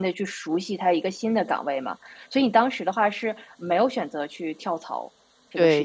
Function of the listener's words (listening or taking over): taking over